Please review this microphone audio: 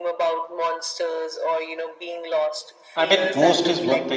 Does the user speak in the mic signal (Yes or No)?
Yes